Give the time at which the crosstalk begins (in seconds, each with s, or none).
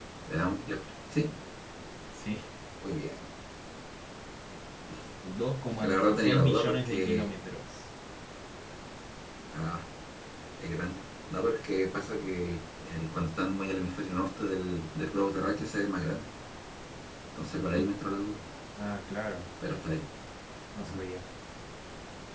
5.7 s